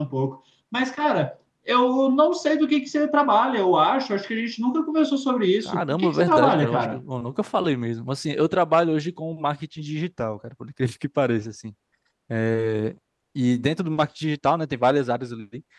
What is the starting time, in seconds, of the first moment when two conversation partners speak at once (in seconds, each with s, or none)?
5.7 s